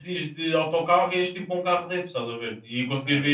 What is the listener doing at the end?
listening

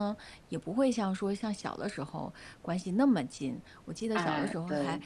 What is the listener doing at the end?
listening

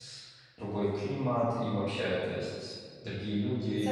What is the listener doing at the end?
taking over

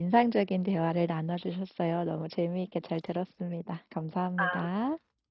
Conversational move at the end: taking over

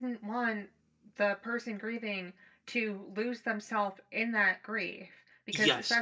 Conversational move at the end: listening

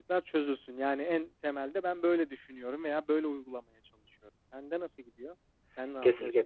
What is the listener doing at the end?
taking over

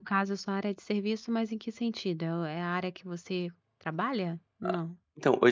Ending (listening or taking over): taking over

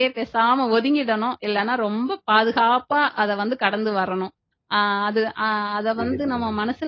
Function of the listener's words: listening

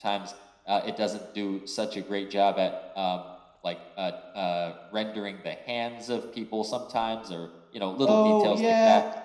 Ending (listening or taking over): taking over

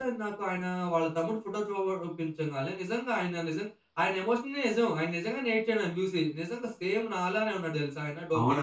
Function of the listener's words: taking over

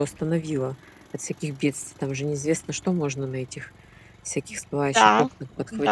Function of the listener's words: taking over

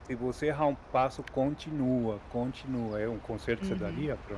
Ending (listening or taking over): taking over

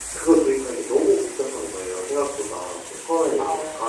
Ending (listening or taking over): listening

